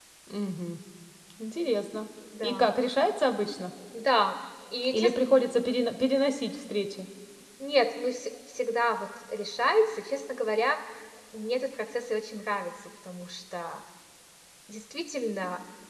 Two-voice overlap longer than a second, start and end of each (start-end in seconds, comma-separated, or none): none